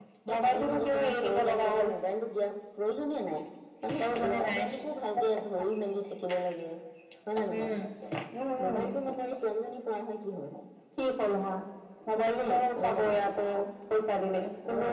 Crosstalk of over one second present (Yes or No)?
Yes